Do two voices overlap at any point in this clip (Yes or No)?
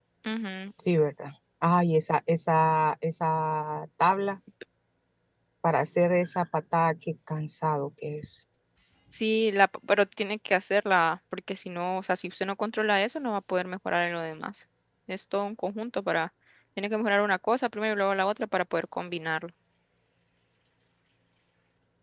No